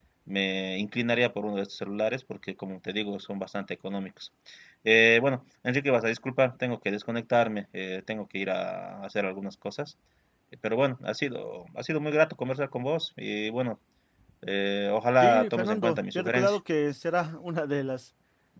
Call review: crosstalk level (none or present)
present